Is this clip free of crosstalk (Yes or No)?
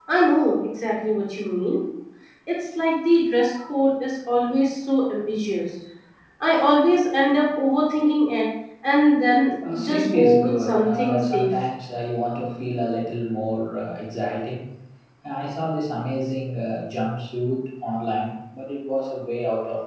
No